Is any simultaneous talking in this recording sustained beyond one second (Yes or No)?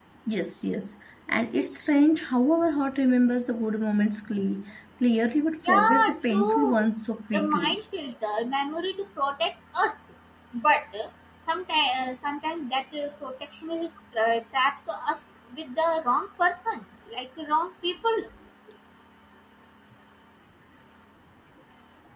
Yes